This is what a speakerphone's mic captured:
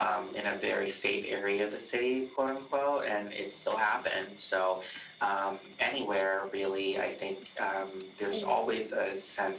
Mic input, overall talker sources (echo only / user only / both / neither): both